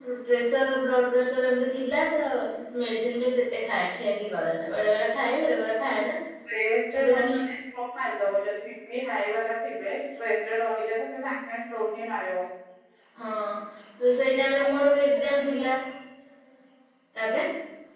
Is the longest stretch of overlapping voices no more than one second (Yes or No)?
Yes